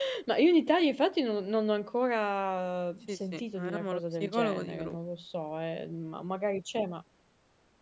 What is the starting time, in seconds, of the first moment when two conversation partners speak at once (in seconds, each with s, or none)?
3.1 s